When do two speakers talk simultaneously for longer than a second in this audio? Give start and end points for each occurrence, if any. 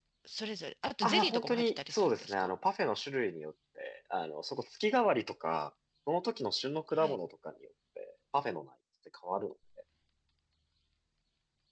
1.0-2.5

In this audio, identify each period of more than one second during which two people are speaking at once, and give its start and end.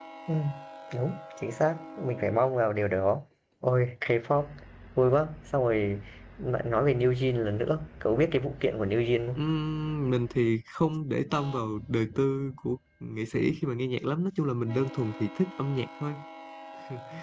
none

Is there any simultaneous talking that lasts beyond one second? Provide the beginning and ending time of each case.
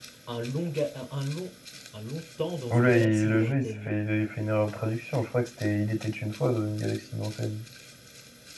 2.7-4.0

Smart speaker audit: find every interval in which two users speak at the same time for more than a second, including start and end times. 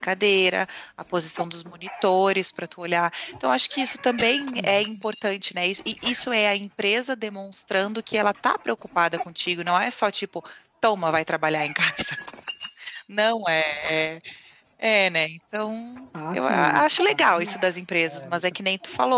16.3-17.6

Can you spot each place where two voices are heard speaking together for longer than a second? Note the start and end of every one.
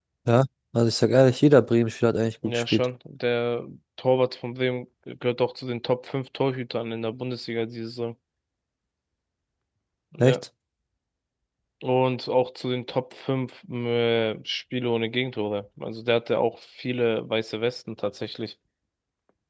none

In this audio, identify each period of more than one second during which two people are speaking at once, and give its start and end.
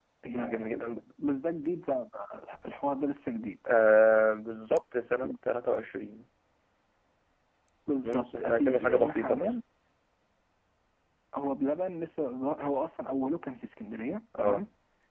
8.0-9.5

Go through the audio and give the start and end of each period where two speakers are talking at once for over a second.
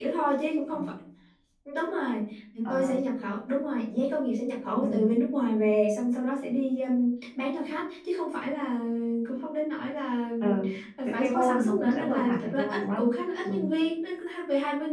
11.0-13.0

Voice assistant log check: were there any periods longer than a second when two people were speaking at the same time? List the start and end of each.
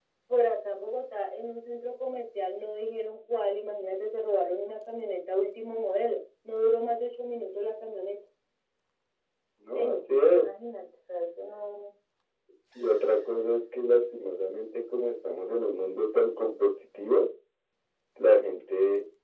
none

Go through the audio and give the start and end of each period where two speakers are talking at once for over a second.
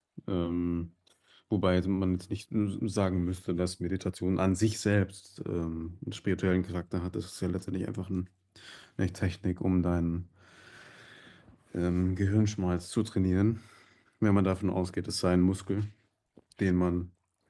none

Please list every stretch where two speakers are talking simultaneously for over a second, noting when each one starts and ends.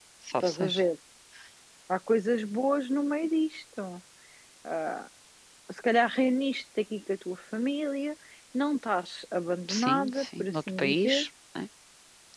9.7-11.2

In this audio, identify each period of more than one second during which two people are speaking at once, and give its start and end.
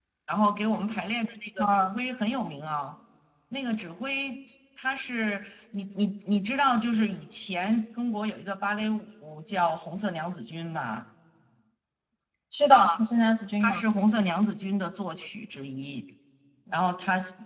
none

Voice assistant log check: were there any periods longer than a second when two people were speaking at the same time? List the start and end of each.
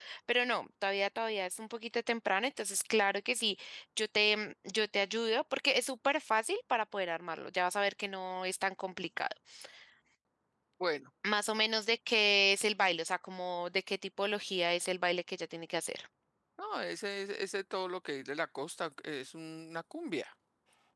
none

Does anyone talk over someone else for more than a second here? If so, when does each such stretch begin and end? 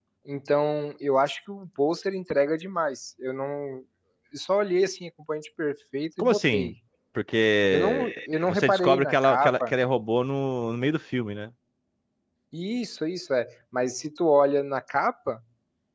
8.4-9.7

